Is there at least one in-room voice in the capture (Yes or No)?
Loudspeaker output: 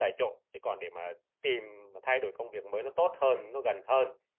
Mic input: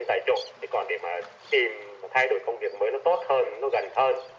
No